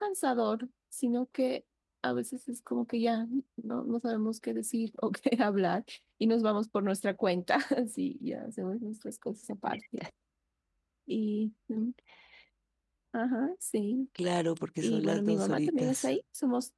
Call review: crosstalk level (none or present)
present